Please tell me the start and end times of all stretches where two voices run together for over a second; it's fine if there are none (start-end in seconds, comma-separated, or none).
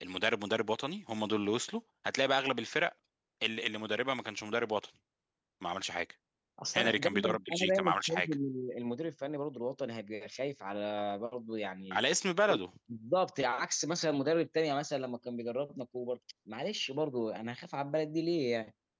6.7-8.3